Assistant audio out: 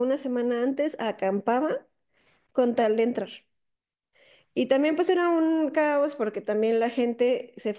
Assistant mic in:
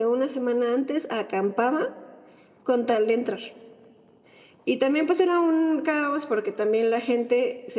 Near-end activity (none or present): none